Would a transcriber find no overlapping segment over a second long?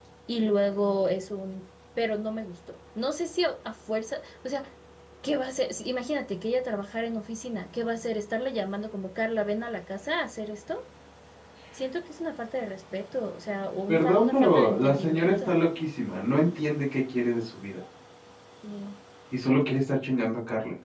No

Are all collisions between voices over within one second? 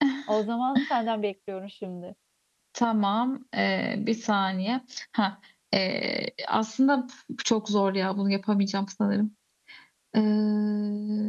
Yes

